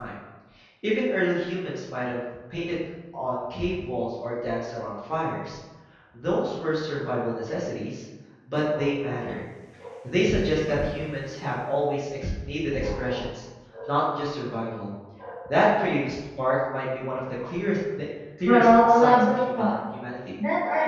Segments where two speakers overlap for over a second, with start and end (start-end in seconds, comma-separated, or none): 18.4-19.7